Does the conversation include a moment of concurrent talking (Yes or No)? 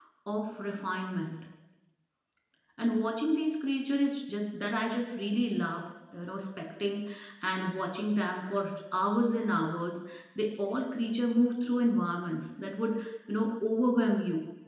No